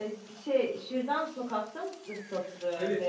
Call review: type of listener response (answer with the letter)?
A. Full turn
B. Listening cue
A